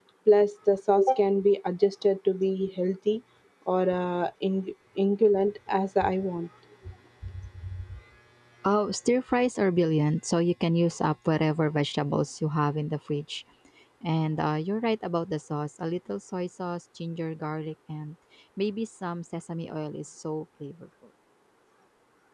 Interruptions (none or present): none